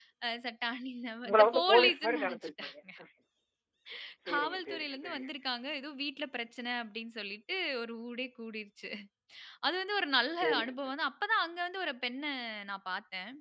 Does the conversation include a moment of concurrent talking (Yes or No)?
Yes